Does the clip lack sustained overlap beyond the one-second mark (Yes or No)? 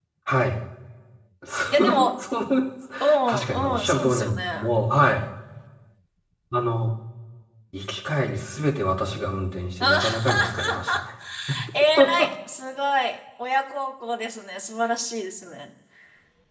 No